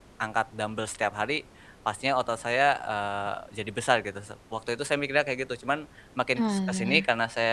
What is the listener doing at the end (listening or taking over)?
listening